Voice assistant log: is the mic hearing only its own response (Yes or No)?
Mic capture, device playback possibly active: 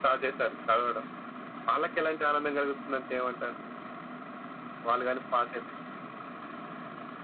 Yes